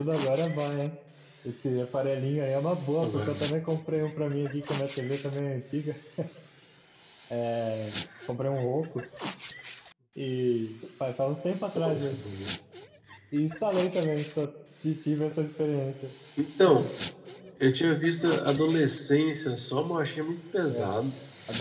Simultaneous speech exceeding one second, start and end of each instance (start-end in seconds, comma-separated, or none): none